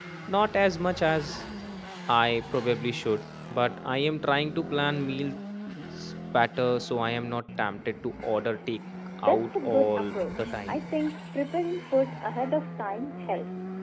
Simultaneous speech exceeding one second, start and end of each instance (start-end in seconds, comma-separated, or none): 9.2-10.8